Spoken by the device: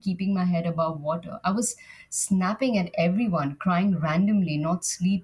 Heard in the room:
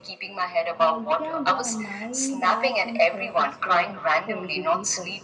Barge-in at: 0.8 s

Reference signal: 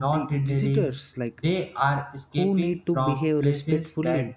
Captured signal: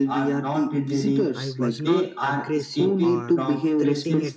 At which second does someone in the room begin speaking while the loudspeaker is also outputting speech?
1.4 s

